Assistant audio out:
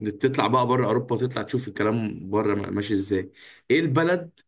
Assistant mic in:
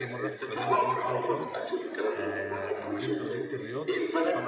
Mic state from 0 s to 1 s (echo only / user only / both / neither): both